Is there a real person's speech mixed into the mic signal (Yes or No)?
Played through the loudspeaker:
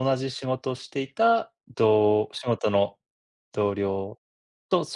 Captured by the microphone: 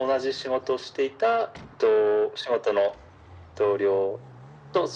No